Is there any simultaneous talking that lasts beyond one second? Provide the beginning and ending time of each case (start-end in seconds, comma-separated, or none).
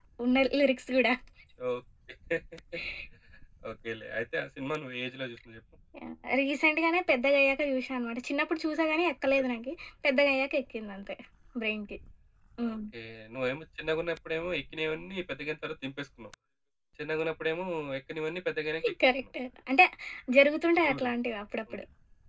none